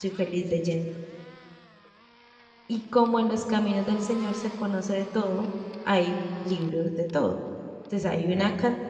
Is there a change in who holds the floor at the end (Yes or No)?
No